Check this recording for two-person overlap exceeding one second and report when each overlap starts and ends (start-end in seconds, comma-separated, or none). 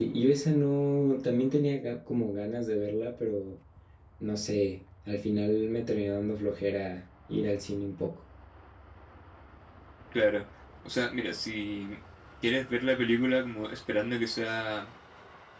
none